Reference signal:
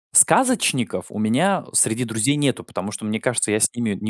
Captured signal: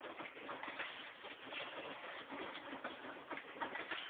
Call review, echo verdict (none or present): none